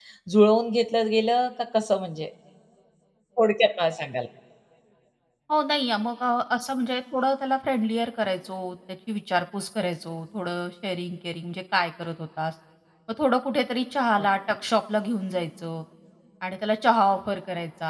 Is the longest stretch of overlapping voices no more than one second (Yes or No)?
Yes